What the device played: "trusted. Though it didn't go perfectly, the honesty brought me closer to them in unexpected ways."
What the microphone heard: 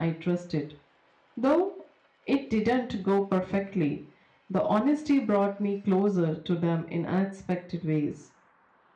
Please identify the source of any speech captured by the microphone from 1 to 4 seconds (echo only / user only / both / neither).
echo only